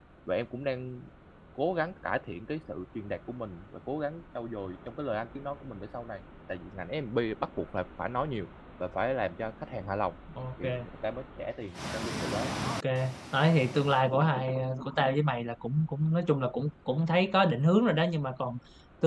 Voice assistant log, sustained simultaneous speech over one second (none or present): none